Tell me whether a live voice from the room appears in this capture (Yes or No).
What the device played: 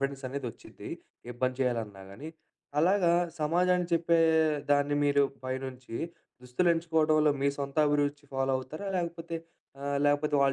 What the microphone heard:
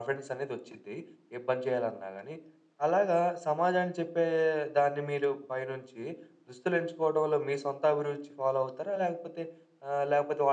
No